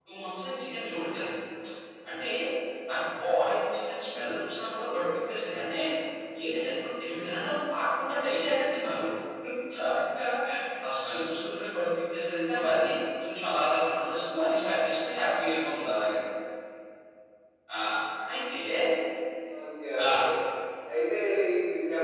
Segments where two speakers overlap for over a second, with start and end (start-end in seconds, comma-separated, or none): none